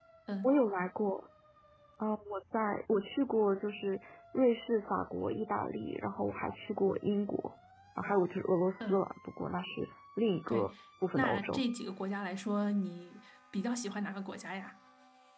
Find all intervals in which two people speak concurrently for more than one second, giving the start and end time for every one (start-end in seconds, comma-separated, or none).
none